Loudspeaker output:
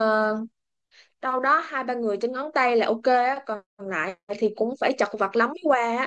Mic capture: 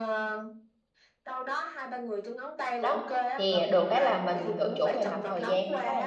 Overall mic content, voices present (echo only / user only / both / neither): both